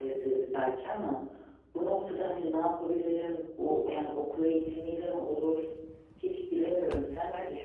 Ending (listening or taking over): taking over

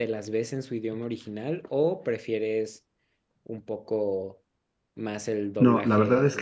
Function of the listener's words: taking over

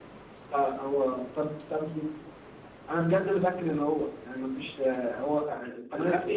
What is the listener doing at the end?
listening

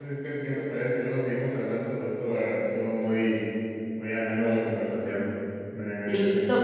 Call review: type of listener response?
taking over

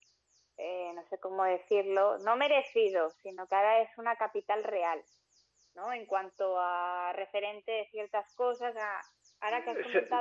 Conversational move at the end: listening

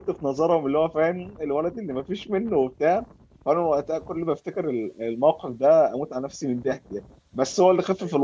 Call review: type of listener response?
listening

